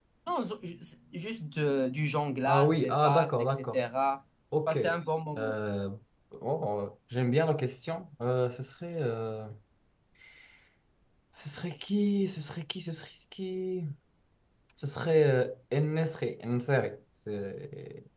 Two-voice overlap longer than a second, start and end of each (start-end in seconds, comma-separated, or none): 2.5-3.8